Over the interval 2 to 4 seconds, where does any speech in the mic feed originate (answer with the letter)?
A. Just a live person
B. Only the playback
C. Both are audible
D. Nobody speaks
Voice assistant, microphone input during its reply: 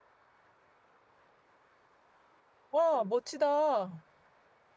A